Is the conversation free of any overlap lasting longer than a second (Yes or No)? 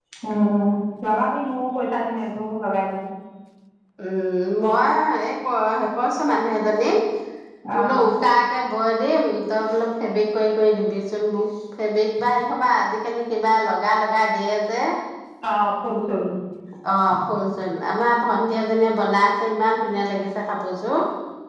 Yes